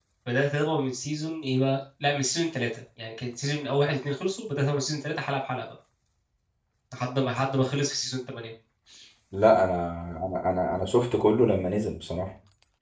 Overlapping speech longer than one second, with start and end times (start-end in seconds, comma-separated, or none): none